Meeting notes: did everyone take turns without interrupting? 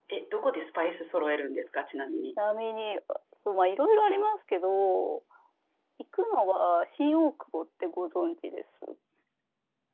Yes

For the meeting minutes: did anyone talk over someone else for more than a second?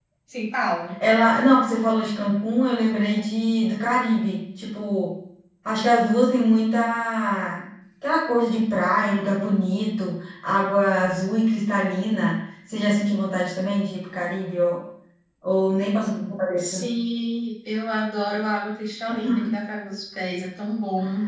No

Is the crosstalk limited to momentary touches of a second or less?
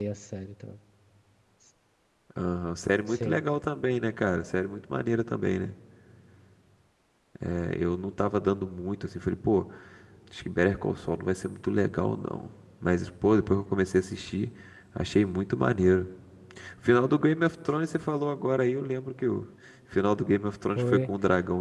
Yes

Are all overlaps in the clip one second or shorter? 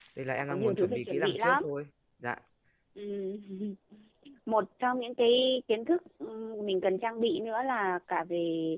No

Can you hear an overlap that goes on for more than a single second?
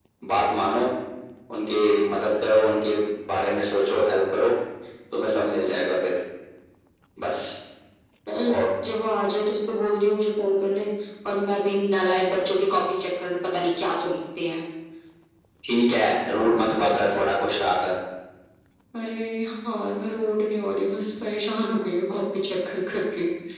No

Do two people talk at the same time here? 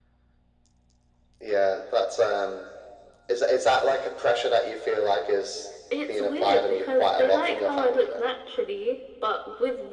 Yes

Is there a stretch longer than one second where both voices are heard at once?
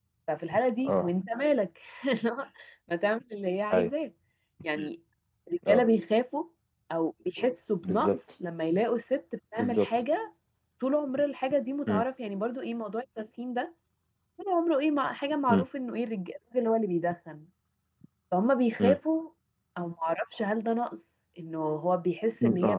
No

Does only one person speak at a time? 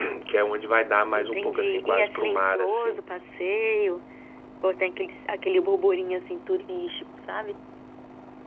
No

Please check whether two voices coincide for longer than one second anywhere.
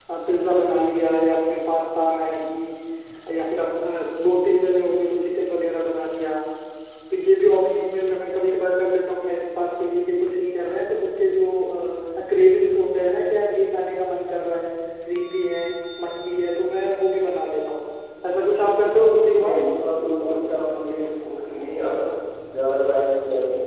No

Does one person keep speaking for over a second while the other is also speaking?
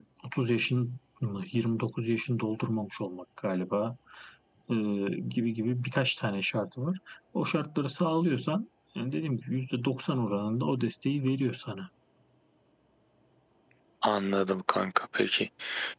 No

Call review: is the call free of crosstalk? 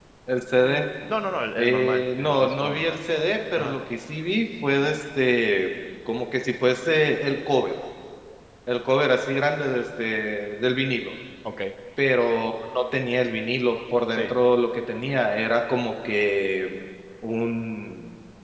No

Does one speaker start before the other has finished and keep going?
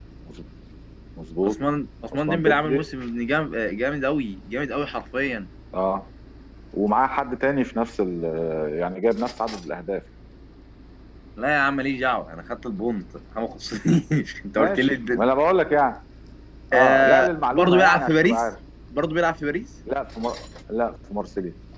Yes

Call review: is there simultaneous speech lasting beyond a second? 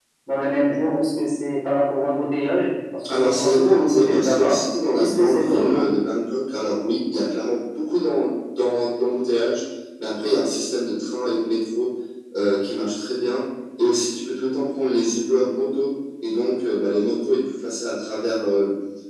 Yes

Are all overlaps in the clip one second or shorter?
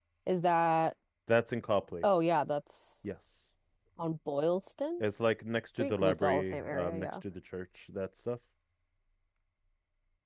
No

